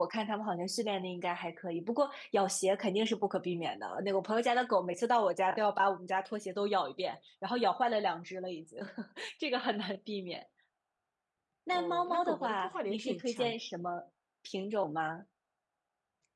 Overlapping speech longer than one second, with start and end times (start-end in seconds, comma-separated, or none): 11.7-13.5